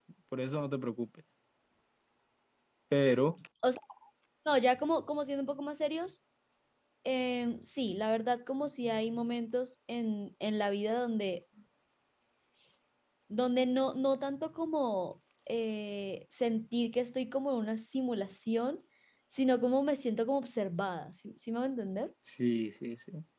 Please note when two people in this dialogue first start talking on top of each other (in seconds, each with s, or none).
none